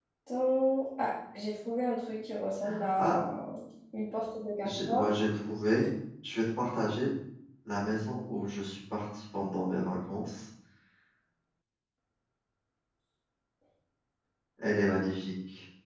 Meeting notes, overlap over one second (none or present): none